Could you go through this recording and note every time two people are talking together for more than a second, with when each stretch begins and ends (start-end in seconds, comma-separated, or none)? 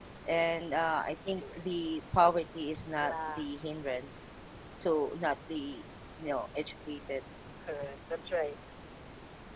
none